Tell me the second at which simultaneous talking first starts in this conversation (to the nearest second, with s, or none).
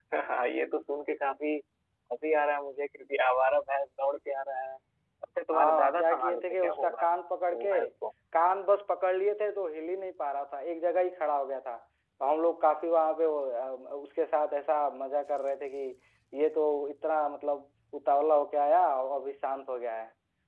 6 s